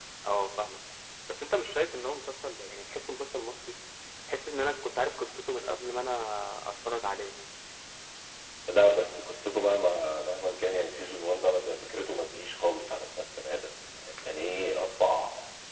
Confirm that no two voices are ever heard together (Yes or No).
Yes